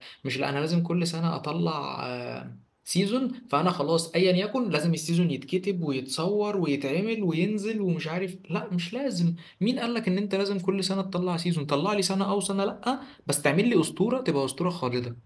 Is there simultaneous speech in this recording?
No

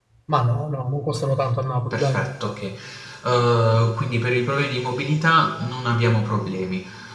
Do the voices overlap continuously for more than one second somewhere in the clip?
No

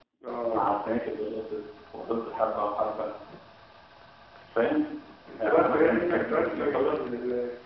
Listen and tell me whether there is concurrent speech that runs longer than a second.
Yes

